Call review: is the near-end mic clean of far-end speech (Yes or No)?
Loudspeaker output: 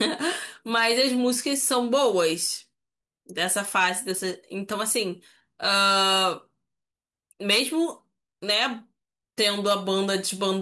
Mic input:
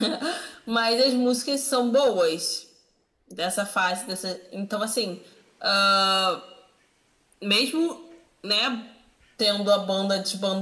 No